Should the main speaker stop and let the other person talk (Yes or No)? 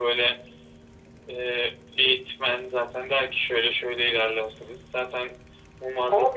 Yes